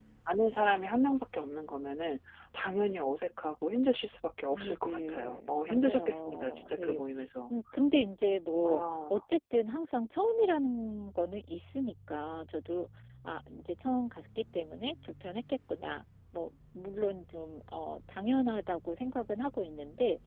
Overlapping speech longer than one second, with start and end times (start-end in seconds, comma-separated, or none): 4.5-7.0